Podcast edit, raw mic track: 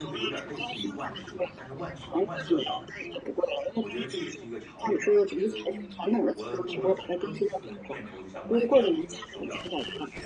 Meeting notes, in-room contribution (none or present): present